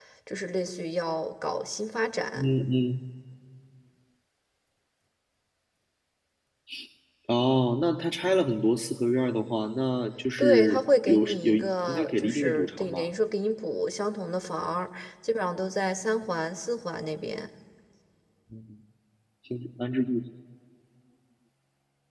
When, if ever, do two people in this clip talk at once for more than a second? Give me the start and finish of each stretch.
10.4-13.1

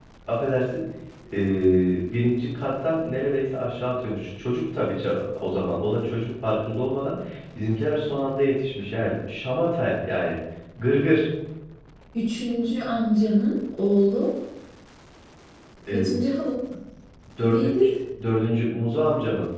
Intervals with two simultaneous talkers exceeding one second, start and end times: none

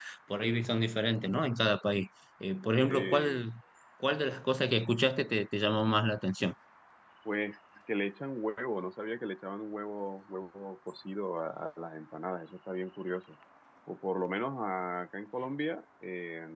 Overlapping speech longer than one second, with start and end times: none

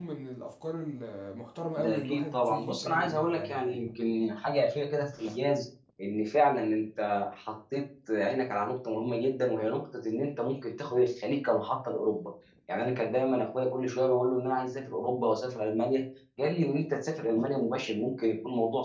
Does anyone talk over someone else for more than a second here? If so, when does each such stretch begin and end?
1.8-3.8

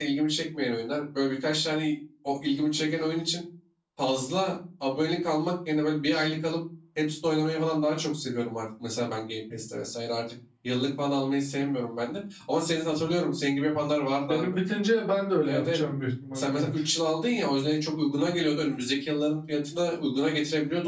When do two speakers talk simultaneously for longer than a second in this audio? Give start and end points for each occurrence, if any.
none

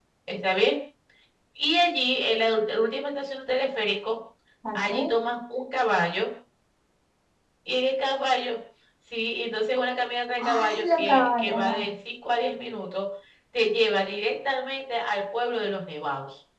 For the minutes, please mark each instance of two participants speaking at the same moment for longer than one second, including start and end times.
10.4-11.8

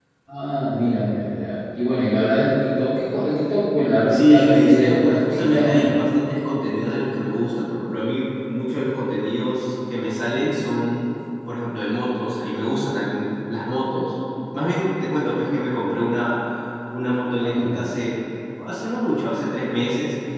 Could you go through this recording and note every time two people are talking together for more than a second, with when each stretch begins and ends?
4.1-6.0

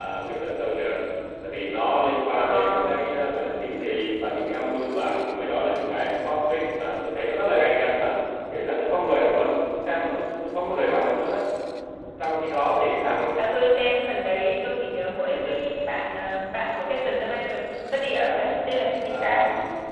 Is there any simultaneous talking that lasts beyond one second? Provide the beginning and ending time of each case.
none

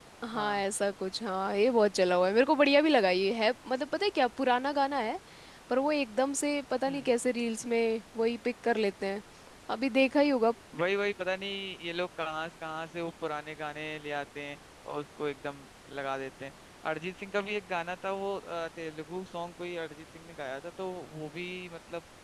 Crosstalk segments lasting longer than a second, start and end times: none

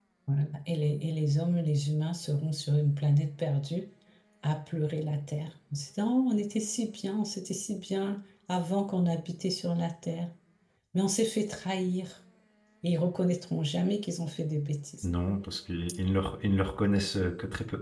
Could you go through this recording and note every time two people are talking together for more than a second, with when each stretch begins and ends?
none

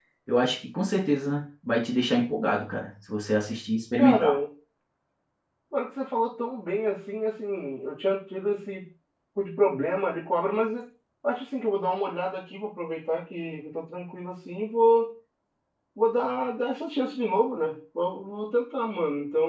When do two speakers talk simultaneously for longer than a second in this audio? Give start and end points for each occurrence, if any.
none

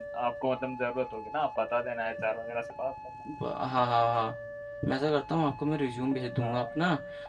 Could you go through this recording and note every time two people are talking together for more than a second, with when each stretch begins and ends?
none

